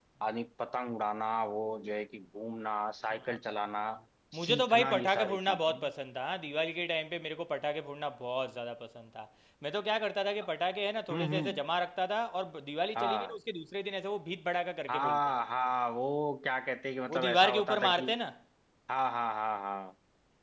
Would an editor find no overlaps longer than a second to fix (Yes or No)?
No